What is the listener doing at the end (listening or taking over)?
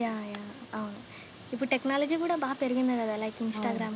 listening